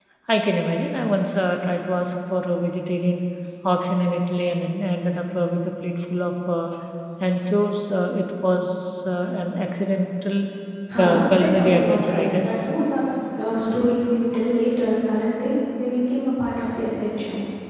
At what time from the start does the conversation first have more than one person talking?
11.0 s

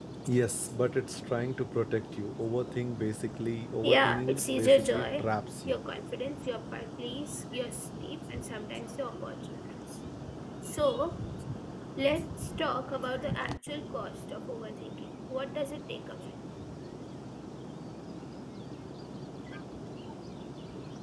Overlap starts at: 3.8 s

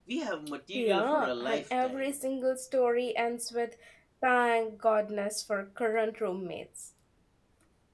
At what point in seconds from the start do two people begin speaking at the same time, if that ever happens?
0.7 s

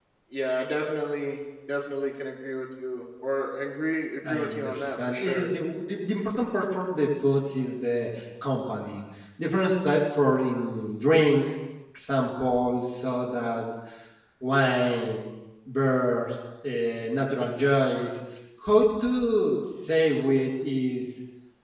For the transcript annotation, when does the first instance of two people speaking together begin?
4.2 s

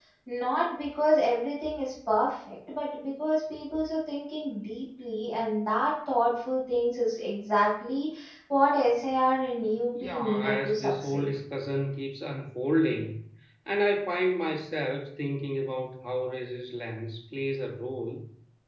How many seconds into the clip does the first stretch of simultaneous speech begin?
10.0 s

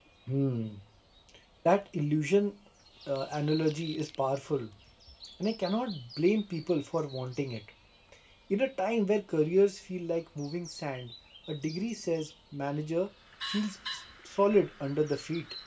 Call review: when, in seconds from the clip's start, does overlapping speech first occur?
none

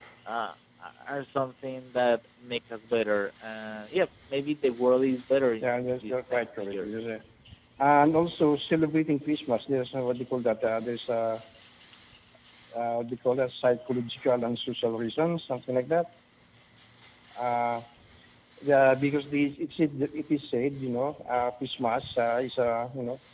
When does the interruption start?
5.6 s

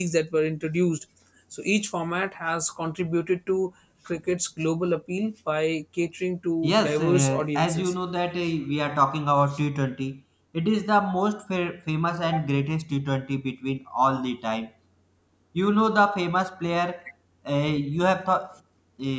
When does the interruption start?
6.6 s

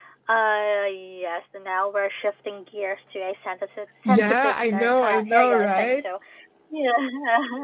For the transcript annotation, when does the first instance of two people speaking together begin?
4.0 s

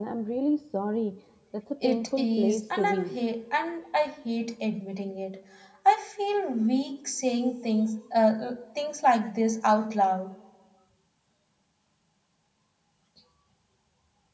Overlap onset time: 1.8 s

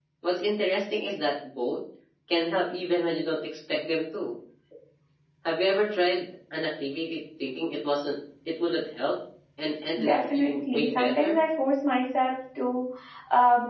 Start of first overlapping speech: 10.0 s

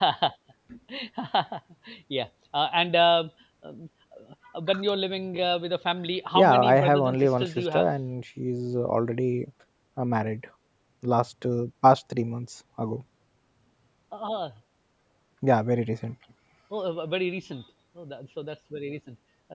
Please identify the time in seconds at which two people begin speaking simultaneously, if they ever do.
6.3 s

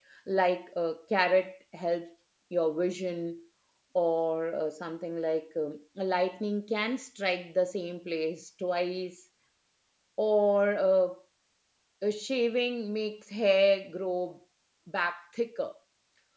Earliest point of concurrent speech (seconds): none

